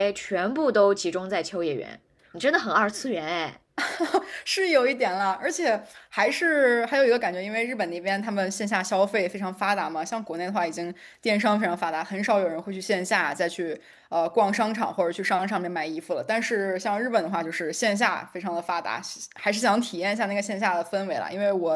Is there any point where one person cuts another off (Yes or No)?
No